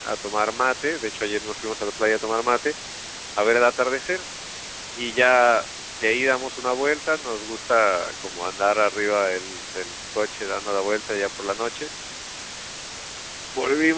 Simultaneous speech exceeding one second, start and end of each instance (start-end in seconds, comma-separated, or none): none